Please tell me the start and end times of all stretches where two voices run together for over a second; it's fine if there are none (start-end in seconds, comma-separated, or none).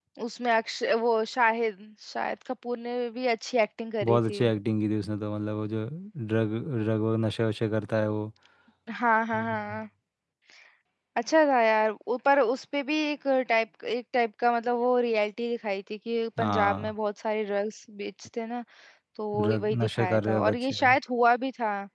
19.4-20.7